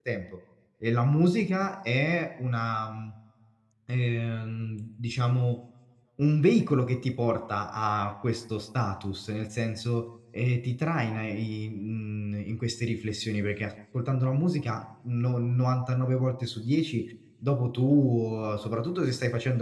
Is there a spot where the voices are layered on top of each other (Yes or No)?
No